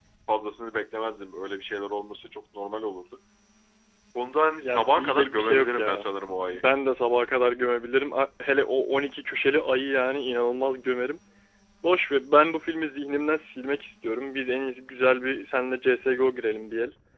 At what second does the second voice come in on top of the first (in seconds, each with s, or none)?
4.6 s